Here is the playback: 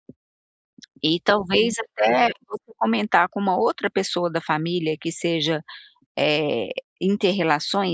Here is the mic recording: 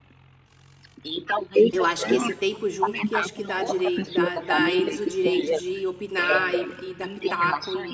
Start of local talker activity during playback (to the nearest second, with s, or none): 2 s